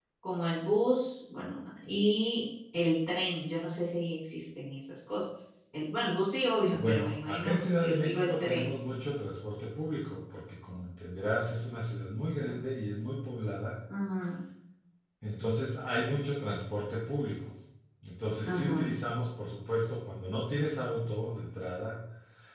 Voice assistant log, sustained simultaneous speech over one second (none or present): present